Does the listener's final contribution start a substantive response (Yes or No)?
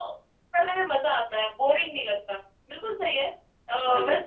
No